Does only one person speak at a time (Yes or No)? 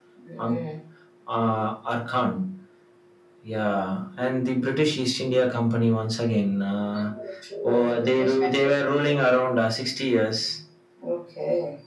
No